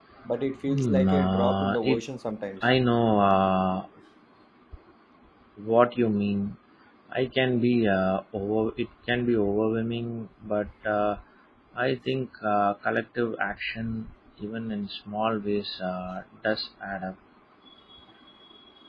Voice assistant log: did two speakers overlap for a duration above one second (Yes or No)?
Yes